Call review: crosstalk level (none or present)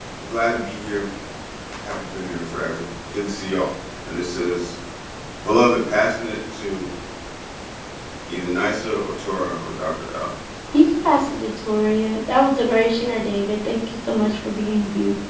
none